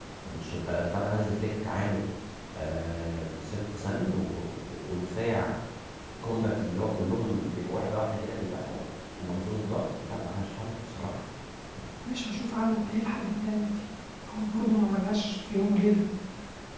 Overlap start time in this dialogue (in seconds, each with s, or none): none